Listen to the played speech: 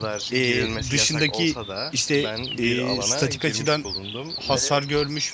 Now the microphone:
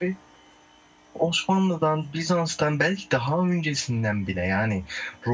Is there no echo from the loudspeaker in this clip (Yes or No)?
Yes